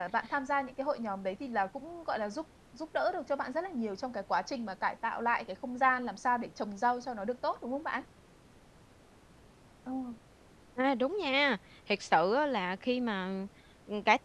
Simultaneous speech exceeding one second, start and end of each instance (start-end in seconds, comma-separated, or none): none